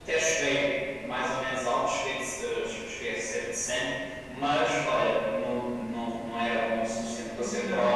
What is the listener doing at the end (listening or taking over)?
taking over